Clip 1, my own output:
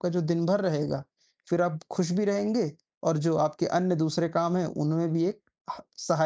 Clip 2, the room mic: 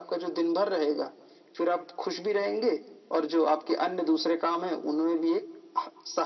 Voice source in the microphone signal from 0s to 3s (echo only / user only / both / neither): echo only